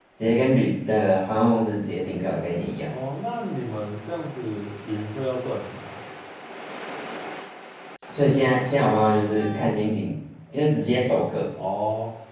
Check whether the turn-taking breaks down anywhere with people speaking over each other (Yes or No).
No